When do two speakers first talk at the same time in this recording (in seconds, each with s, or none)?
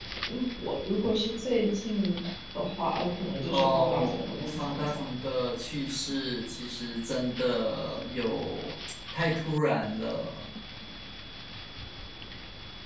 3.5 s